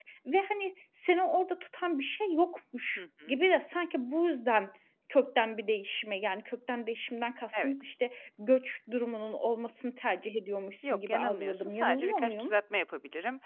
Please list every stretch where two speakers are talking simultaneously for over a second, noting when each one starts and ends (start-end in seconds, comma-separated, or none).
10.9-12.5